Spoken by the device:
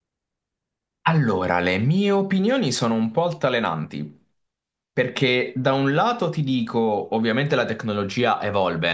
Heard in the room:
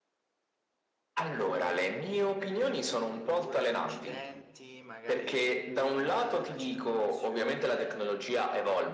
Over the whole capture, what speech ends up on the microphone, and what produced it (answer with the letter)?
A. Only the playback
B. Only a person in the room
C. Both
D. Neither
C